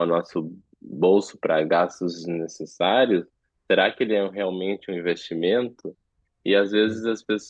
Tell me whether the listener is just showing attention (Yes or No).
Yes